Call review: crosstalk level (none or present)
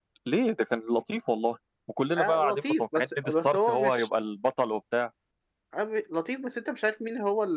present